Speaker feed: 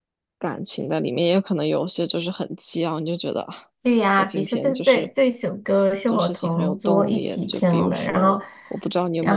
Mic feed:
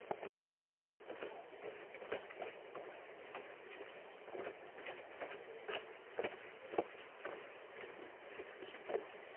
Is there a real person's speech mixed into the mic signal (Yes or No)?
No